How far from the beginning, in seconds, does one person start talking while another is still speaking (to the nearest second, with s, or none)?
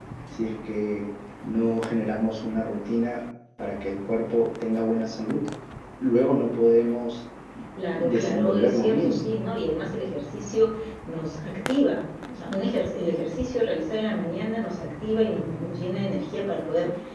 8 s